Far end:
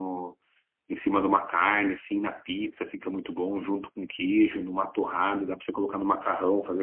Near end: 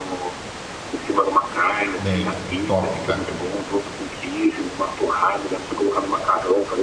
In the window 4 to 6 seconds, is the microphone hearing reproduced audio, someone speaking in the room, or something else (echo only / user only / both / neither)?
echo only